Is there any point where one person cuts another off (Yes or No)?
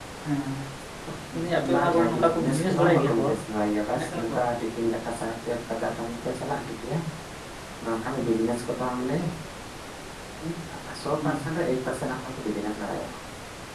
Yes